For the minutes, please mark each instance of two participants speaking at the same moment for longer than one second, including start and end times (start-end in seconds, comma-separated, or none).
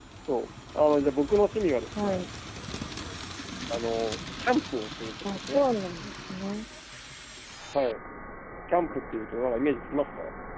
none